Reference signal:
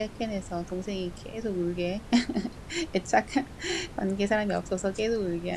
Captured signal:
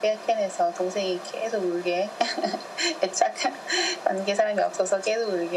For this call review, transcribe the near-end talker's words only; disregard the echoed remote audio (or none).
none